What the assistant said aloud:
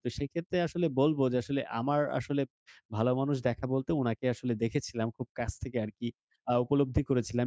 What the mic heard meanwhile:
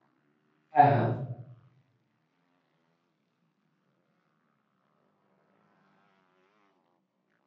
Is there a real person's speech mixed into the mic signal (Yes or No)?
Yes